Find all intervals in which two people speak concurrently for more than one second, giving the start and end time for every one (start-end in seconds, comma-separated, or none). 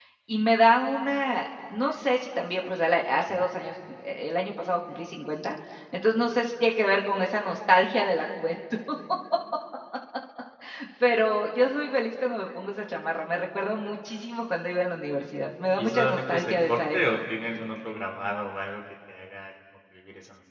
15.8-17.0